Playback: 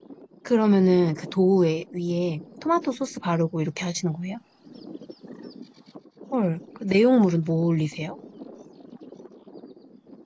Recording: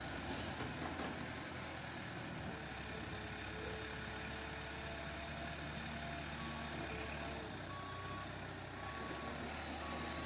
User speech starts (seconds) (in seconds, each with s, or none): none